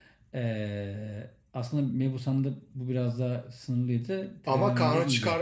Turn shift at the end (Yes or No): Yes